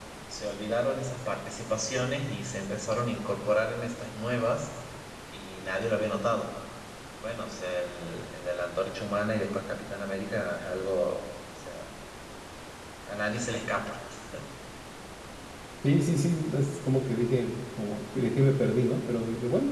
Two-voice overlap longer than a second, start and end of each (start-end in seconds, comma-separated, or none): none